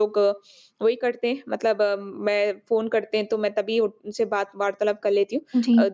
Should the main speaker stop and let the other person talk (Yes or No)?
No